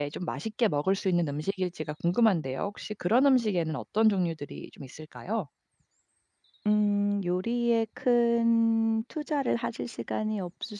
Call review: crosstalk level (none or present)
none